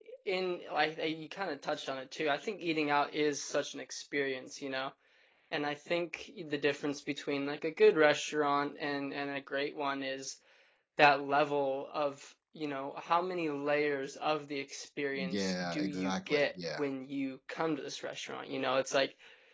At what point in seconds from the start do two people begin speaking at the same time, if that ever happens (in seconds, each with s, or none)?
15.2 s